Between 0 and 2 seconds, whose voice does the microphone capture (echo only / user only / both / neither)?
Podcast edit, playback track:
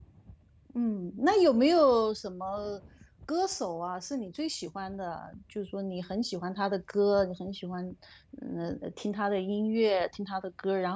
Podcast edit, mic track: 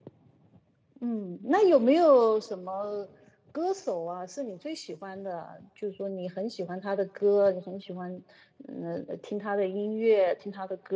echo only